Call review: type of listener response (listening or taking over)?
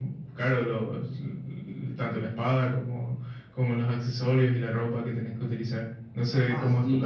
taking over